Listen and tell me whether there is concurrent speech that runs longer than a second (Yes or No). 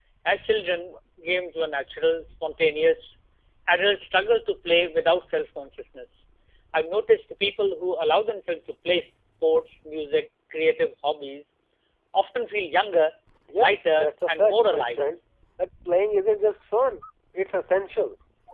Yes